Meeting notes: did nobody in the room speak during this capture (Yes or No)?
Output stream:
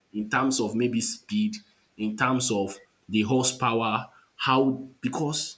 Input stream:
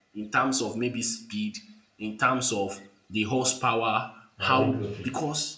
No